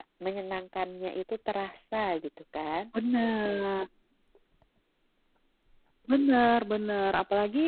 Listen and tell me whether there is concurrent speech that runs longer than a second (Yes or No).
No